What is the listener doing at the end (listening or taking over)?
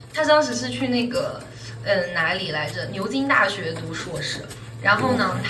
listening